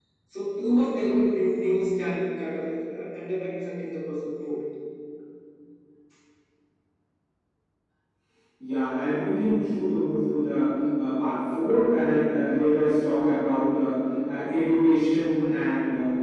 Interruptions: none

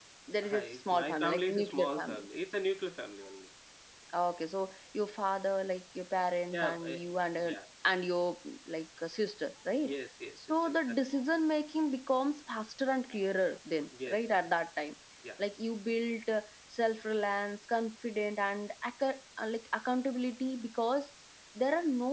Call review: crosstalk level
present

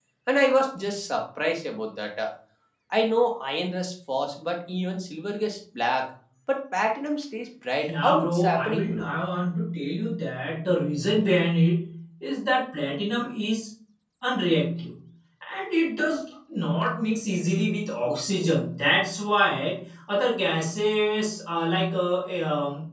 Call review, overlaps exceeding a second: present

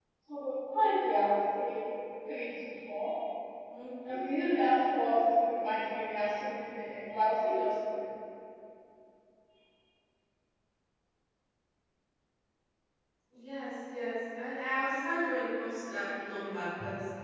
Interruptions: none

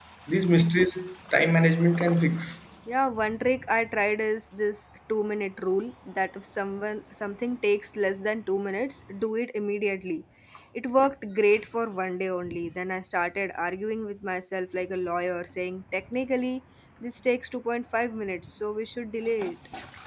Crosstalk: none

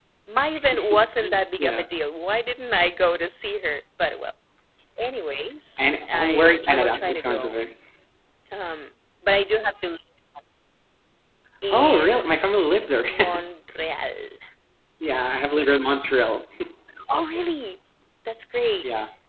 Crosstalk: present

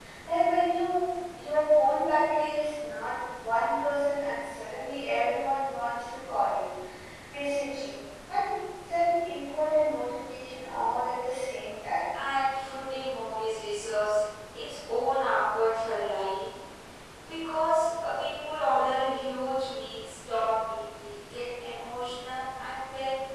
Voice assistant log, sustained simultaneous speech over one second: none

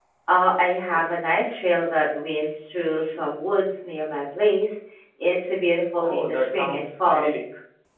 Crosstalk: present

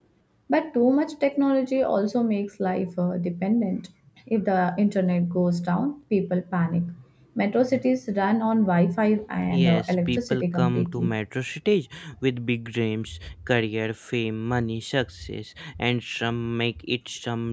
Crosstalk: present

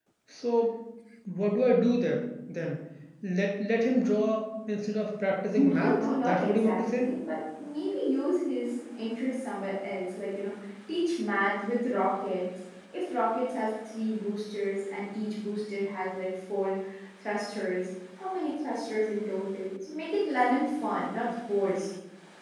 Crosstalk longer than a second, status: present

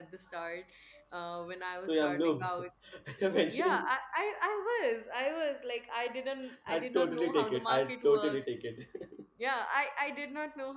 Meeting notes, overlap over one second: present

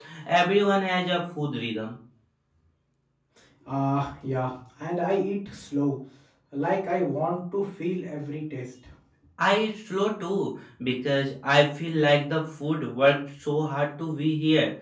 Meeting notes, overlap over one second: none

